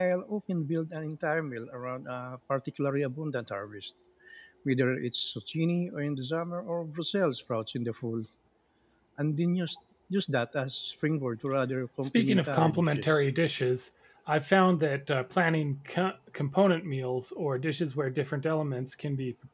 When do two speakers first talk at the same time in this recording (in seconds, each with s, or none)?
12.0 s